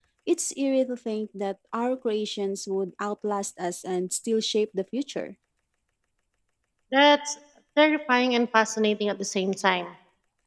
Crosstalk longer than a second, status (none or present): none